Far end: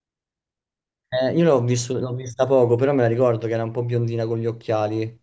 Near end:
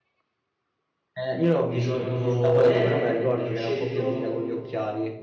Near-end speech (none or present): present